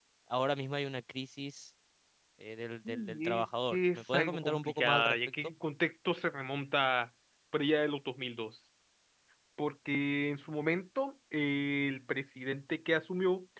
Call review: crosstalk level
present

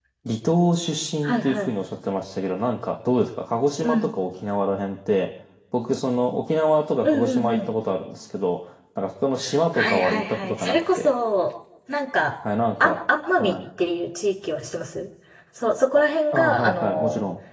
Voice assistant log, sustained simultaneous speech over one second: present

